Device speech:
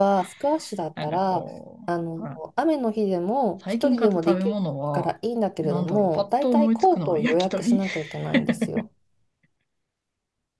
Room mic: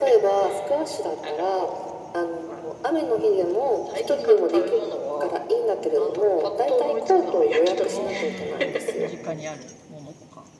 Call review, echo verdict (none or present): present